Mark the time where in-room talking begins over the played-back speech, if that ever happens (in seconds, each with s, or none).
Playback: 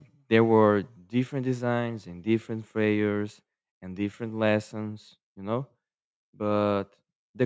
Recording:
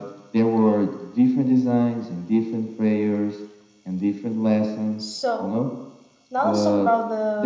5.0 s